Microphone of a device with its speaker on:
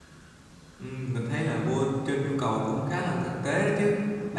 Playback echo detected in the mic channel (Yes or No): No